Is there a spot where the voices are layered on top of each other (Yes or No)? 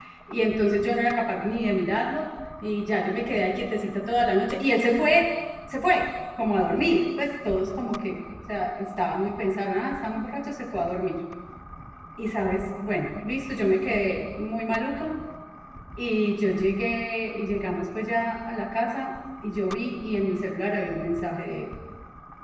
No